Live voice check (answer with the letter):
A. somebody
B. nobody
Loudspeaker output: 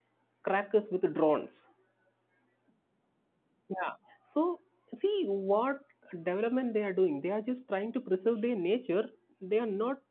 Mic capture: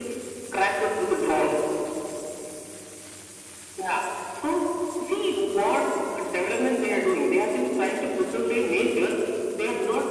B